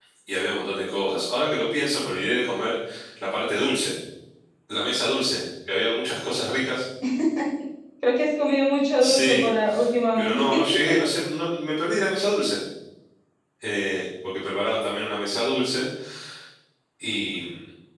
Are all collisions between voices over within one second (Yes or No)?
Yes